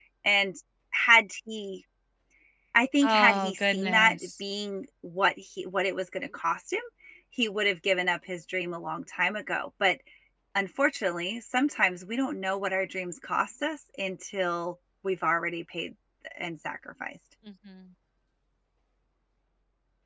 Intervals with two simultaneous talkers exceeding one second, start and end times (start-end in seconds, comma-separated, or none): 3.0-4.3